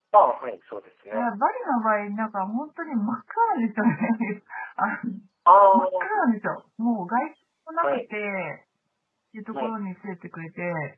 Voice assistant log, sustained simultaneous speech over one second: none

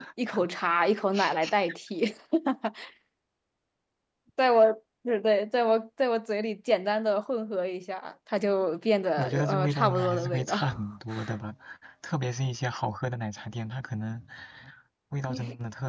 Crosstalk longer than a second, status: present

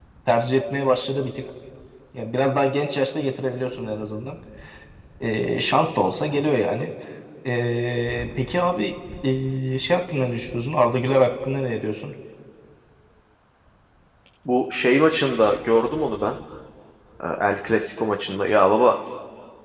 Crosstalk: none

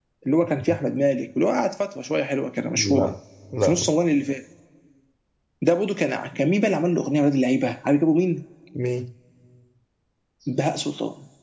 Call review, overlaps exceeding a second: none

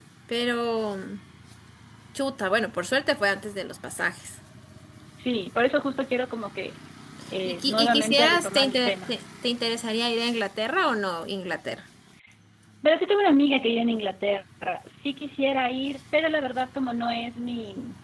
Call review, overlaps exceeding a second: present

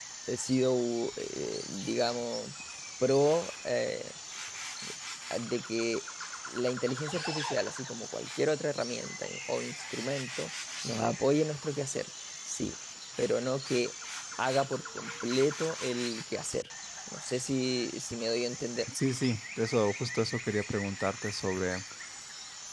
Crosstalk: none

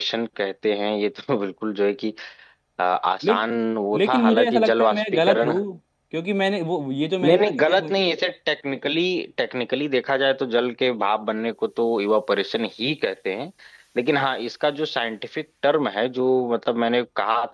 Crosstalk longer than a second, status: present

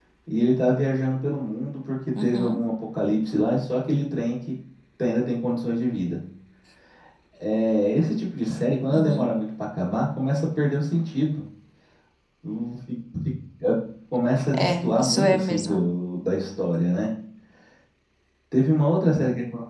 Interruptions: present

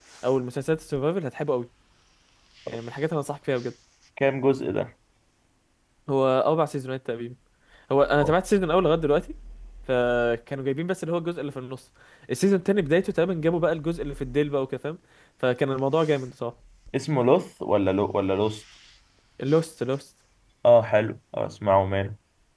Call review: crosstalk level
none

